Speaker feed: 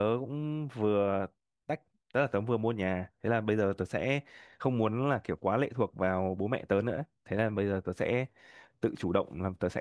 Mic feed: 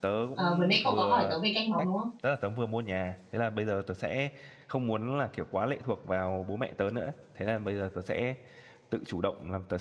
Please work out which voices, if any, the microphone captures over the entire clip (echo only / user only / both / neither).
both